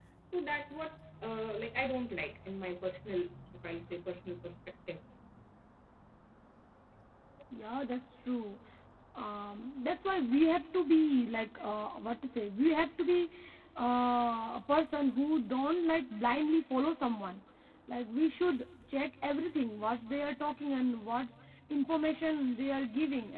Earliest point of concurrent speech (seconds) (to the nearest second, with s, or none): none